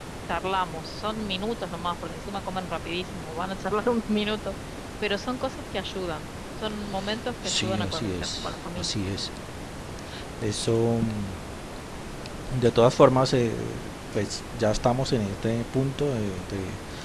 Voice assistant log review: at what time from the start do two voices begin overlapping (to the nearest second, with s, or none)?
7 s